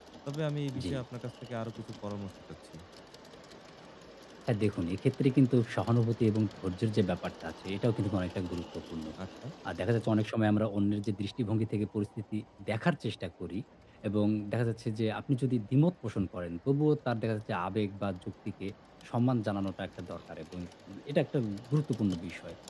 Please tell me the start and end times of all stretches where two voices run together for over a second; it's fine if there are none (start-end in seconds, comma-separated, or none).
none